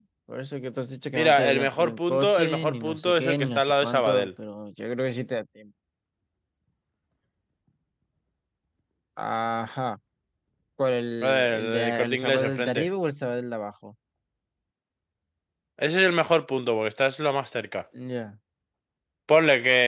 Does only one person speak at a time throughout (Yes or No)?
No